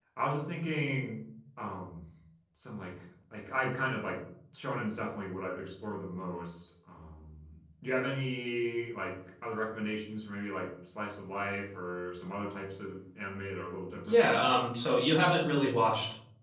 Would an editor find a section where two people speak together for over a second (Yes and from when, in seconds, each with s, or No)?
No